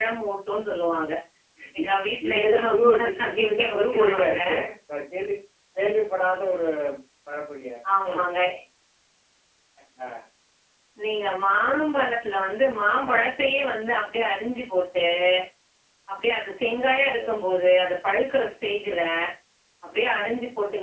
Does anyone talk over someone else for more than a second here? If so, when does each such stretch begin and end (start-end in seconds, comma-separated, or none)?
2.3-4.4